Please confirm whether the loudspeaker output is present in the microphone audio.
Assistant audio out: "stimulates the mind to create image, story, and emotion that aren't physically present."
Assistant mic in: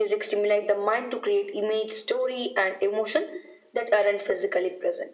Yes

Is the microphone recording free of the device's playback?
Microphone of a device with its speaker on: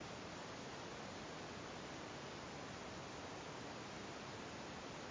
Yes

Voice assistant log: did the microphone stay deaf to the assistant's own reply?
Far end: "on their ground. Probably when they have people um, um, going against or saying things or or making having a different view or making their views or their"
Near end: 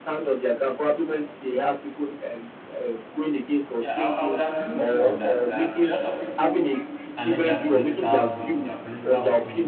No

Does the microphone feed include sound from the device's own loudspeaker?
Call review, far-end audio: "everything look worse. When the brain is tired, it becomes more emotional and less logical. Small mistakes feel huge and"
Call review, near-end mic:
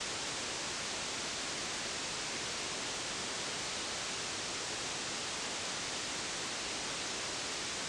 No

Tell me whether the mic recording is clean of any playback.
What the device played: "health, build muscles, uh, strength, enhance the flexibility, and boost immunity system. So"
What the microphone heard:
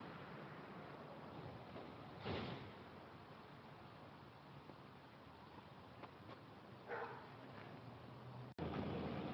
Yes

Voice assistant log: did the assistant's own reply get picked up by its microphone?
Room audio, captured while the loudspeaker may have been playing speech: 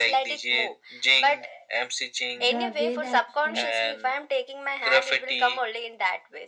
Yes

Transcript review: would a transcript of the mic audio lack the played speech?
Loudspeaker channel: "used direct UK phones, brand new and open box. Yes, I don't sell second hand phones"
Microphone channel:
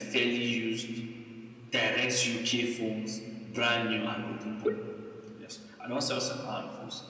No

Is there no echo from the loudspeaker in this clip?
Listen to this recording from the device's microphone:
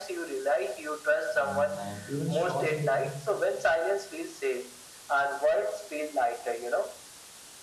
No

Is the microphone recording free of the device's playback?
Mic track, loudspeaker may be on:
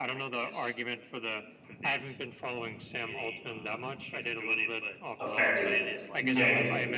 No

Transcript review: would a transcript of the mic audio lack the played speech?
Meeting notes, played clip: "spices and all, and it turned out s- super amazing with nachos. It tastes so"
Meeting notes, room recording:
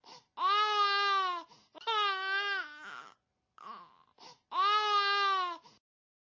Yes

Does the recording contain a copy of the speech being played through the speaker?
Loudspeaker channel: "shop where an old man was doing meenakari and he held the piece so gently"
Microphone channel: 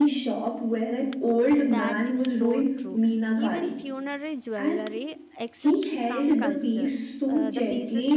Yes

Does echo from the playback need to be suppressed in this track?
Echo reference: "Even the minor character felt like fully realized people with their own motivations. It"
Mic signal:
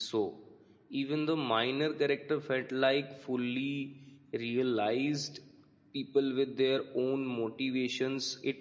Yes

